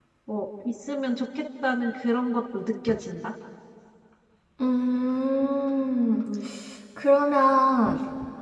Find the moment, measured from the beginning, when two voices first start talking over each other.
none

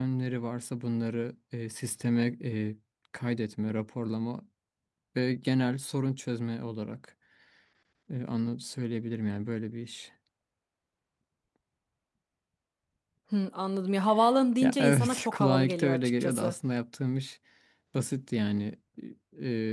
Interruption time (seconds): 14.6 s

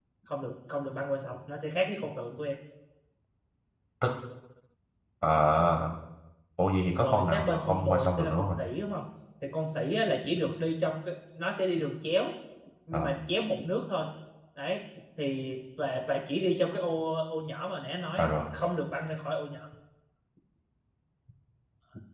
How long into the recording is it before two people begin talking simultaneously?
7.0 s

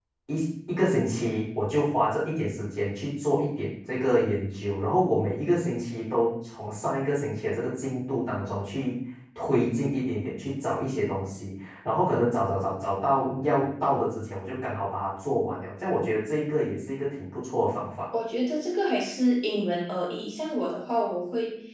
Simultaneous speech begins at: none

